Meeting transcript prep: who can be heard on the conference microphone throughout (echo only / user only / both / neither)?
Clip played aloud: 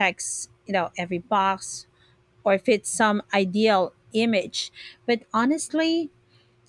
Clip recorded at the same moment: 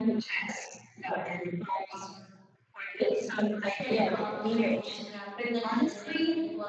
both